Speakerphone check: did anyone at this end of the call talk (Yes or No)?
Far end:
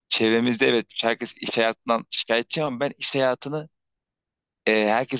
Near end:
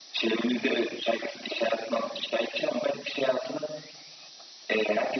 No